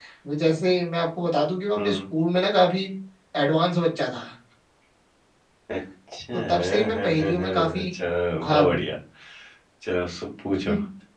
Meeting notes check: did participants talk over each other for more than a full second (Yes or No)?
Yes